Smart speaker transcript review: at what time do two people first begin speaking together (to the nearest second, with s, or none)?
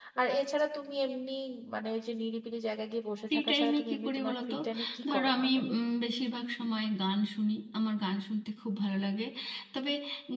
3 s